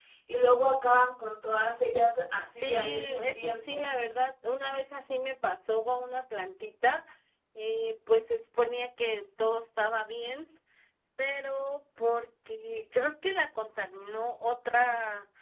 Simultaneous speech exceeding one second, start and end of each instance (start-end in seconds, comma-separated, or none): 2.5-3.9